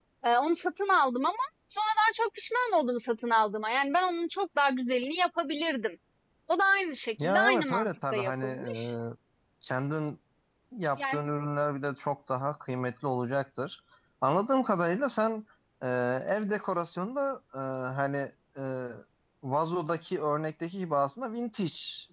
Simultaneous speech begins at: 7 s

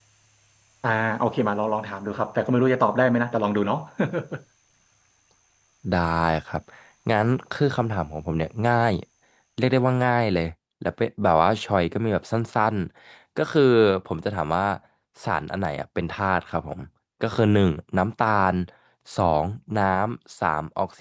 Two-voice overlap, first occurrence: none

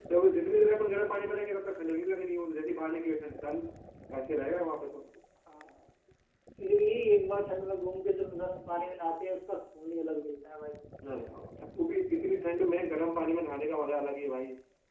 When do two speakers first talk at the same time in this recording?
none

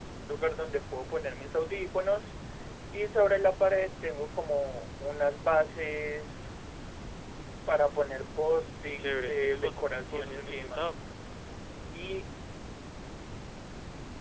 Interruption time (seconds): 9 s

